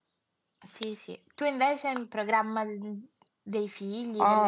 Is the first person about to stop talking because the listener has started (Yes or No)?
Yes